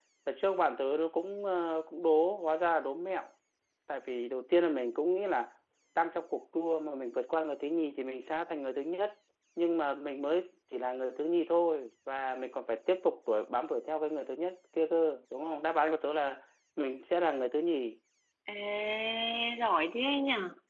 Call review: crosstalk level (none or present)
none